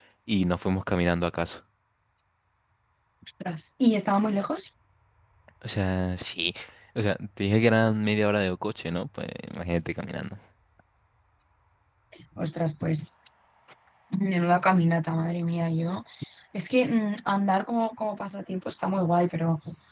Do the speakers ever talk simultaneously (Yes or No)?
No